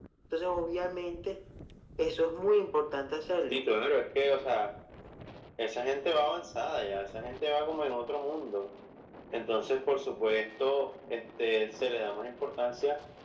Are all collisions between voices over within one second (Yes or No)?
Yes